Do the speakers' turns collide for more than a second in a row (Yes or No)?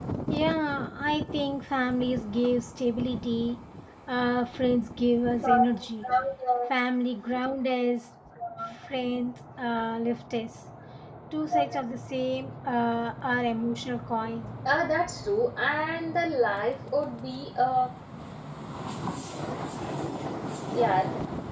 No